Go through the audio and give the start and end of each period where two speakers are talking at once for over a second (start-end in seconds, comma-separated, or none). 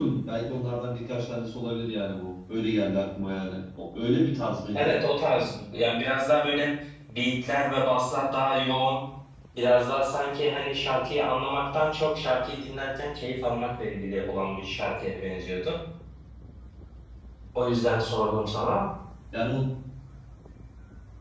none